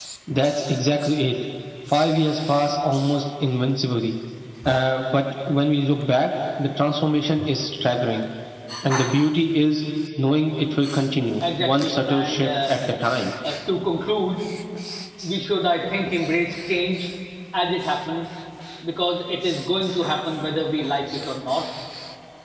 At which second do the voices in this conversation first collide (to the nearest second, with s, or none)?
11 s